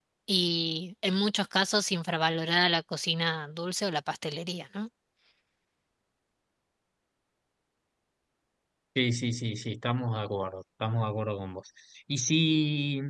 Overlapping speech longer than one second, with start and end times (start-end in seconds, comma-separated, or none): none